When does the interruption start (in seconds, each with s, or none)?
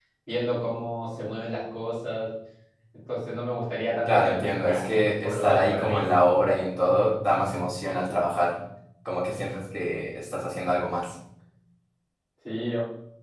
4.0 s